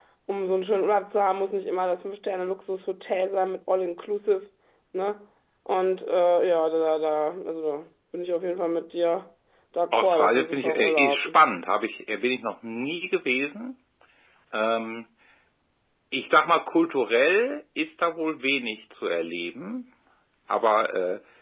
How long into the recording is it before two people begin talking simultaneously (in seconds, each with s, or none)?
9.9 s